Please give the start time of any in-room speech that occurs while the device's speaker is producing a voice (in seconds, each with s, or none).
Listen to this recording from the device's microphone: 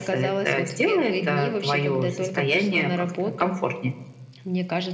none